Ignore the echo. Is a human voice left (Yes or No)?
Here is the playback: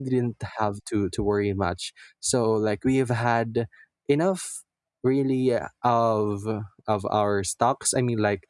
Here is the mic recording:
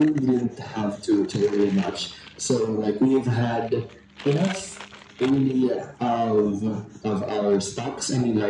No